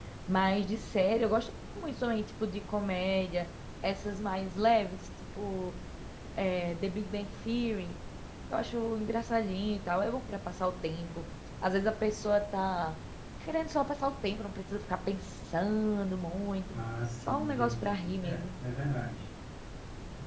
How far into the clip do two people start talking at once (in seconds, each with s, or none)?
17.3 s